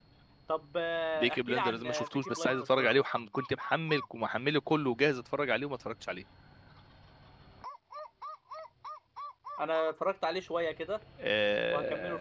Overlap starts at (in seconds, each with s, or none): 1.1 s